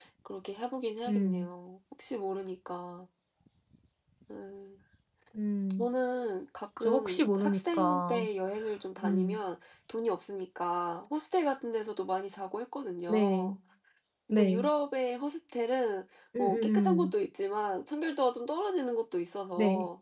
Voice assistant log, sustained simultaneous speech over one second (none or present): present